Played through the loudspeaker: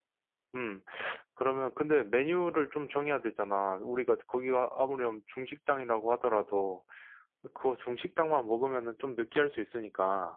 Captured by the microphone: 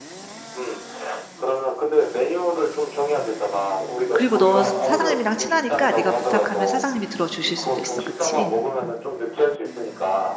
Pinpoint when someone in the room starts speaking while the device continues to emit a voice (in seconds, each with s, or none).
4.1 s